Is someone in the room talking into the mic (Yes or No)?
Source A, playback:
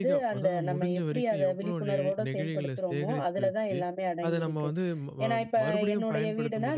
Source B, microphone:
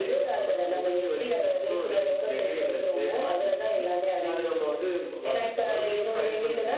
No